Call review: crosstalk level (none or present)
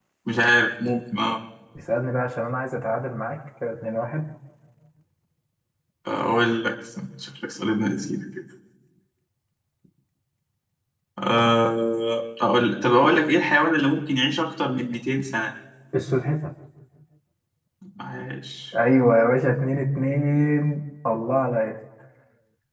none